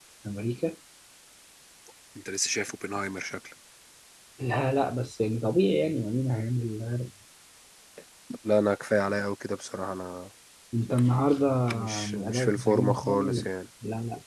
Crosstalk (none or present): present